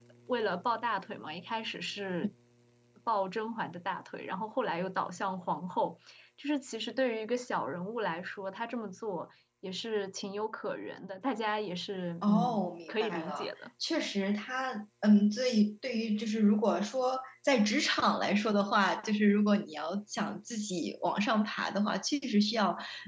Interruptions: present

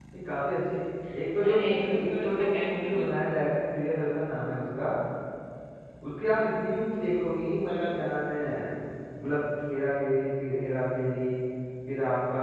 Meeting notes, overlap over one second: present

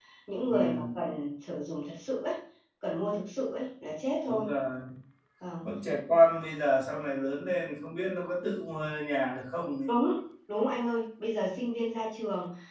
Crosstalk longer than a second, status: none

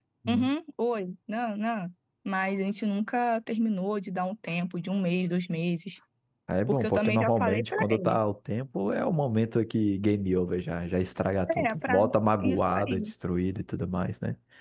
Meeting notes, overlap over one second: present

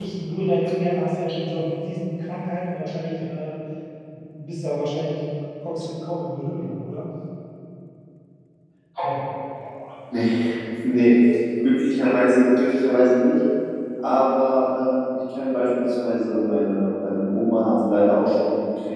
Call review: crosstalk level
none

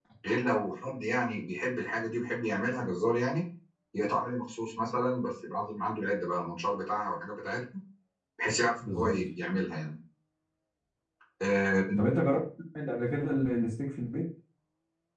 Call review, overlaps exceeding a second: none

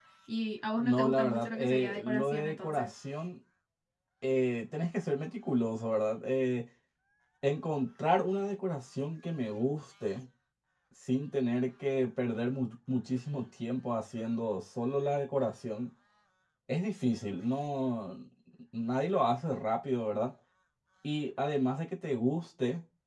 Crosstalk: present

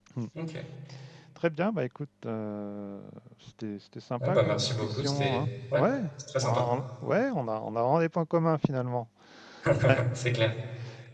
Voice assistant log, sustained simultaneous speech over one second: present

